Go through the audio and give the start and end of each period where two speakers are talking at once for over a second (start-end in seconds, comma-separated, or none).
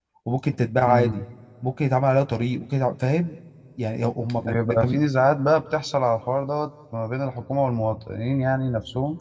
none